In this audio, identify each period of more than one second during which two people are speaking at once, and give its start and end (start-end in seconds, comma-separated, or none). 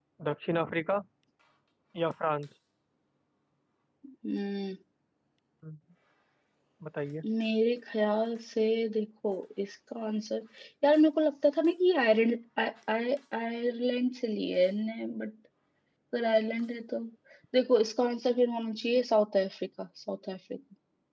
none